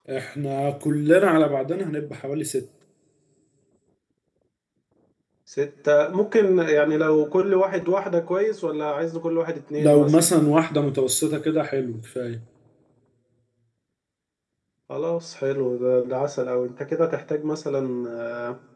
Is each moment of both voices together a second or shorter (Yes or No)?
Yes